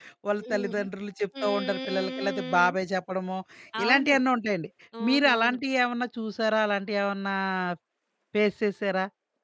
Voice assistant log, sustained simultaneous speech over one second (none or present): present